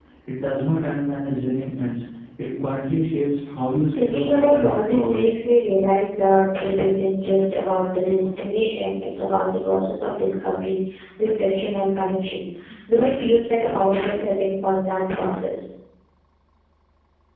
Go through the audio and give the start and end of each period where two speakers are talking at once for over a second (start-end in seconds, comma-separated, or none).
3.9-5.2